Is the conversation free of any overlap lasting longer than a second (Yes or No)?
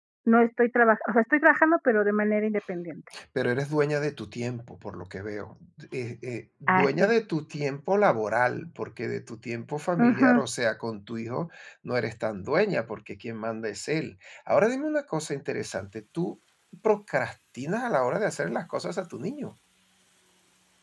Yes